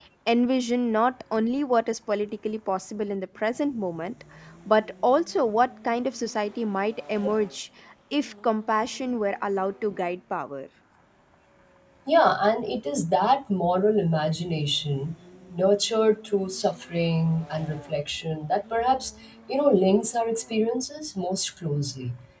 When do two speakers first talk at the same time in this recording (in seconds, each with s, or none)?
none